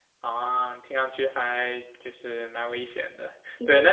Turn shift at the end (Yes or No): No